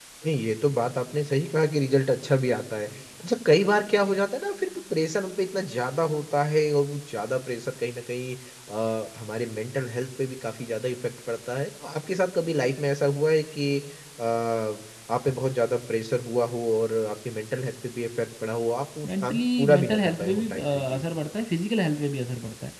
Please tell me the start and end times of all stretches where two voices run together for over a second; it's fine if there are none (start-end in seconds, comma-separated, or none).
19.0-21.0